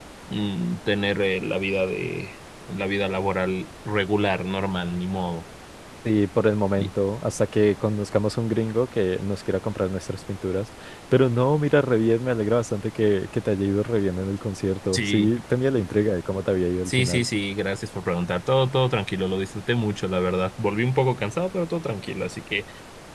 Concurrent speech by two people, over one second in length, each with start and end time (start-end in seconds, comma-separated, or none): none